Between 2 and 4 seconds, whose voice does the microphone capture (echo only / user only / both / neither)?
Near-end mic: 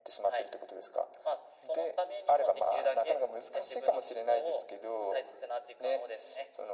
echo only